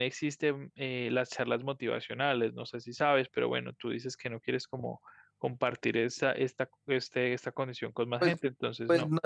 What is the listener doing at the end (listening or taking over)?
taking over